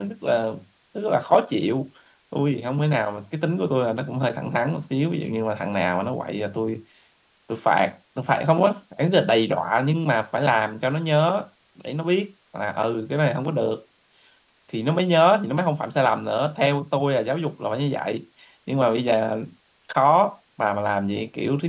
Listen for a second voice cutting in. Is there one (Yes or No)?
No